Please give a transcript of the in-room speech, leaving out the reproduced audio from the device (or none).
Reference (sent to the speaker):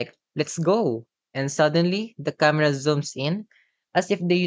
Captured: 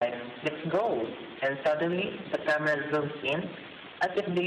none